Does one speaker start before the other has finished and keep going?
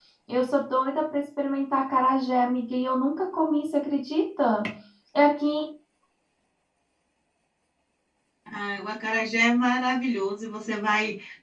No

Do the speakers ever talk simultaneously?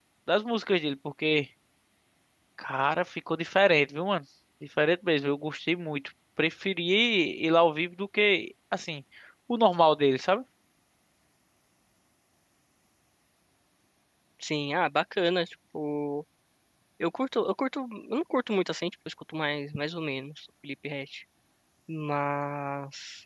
No

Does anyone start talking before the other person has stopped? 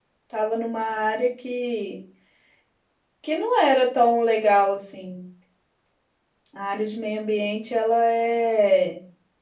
No

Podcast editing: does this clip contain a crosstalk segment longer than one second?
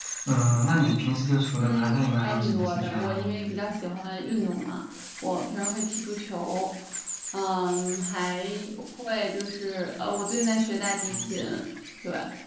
Yes, from 1.6 s

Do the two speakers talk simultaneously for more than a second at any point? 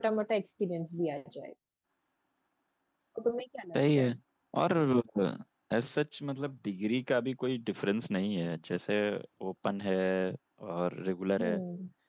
No

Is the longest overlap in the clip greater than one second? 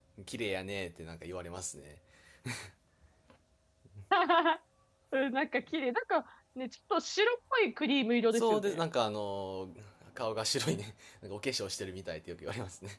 No

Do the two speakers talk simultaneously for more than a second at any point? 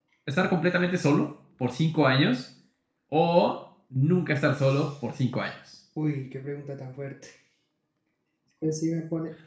No

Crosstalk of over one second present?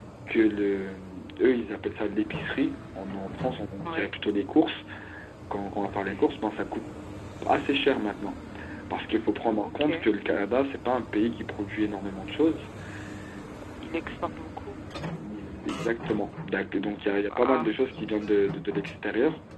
No

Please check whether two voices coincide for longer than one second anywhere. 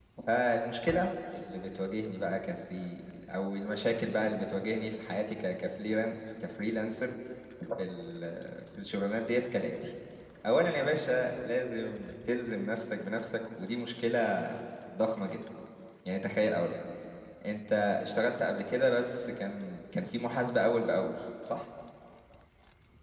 No

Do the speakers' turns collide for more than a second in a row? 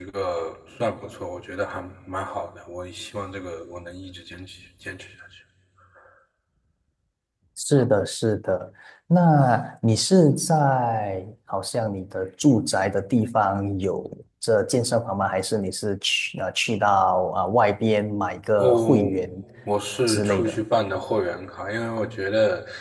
No

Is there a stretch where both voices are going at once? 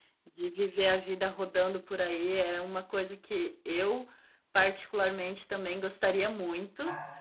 No

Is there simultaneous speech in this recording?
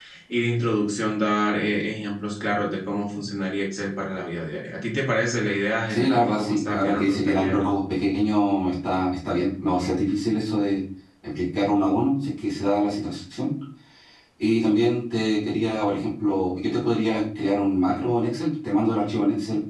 Yes, from 5.9 s

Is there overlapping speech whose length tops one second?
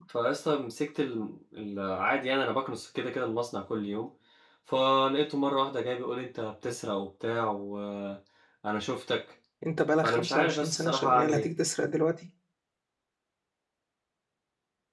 Yes, from 10.0 s

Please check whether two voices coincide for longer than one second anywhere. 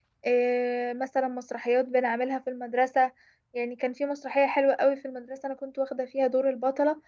No

